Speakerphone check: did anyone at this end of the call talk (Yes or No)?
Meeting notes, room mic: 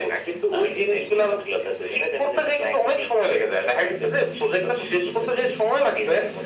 No